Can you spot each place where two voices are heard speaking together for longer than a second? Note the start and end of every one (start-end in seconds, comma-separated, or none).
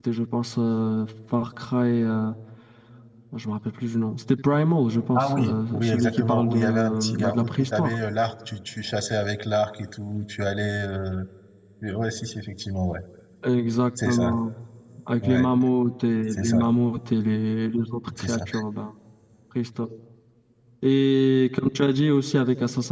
5.2-8.0